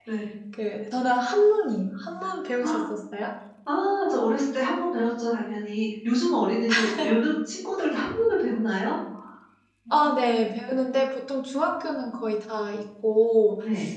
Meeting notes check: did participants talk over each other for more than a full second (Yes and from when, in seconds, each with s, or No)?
No